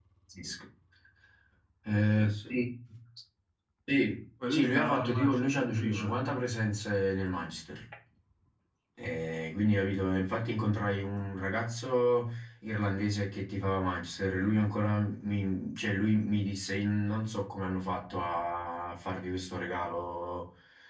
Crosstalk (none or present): present